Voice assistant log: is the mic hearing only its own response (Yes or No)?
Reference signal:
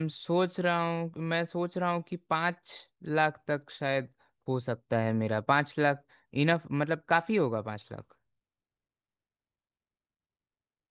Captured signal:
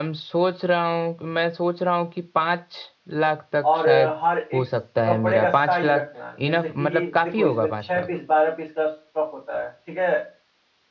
No